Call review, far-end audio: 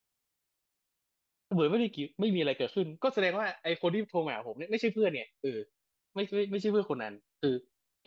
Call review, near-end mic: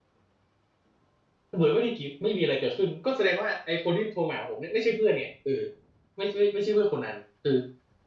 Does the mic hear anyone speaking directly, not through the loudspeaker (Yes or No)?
No